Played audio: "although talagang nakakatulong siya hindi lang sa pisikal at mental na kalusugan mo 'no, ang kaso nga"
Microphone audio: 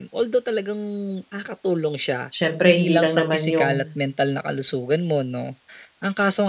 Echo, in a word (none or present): present